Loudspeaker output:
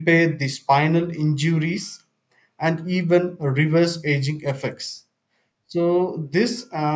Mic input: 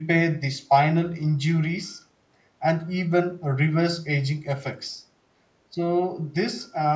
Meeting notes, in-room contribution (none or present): none